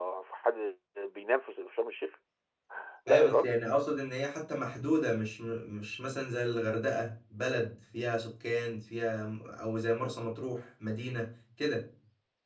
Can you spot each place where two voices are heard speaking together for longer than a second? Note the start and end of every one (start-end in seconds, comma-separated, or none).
none